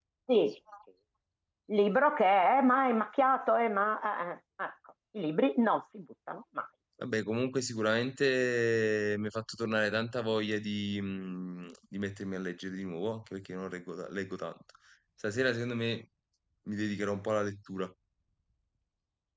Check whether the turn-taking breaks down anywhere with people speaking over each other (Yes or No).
No